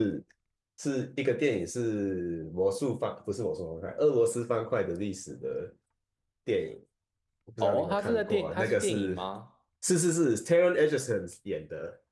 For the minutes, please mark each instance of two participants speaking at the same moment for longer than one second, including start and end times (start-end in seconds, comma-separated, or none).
7.6-9.2